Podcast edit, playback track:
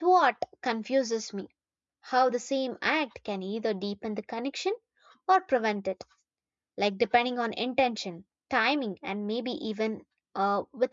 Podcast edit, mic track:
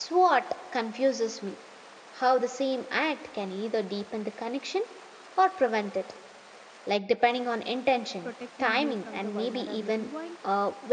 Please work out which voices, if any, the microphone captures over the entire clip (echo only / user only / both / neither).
both